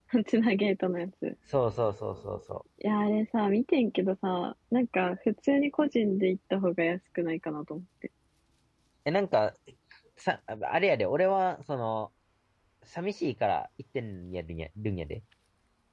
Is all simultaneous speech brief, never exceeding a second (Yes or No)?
Yes